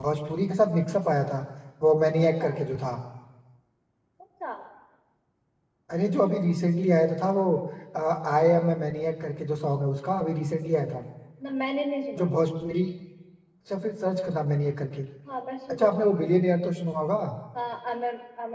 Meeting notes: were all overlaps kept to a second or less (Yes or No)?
Yes